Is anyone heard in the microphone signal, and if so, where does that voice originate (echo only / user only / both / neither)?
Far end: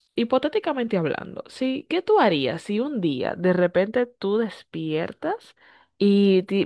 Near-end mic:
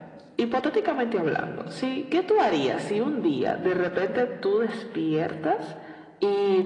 echo only